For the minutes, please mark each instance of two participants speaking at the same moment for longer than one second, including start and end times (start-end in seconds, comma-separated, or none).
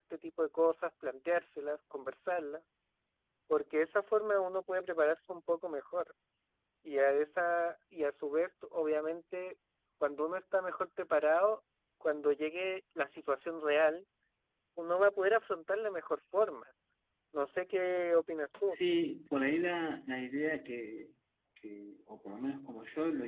none